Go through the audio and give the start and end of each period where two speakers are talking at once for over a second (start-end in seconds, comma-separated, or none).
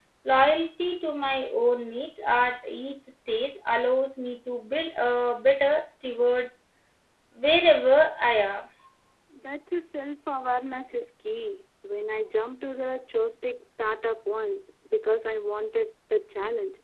none